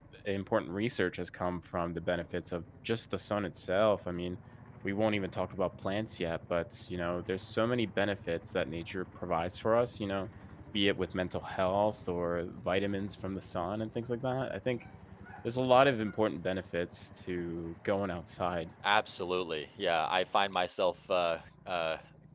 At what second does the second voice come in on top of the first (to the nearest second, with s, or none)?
none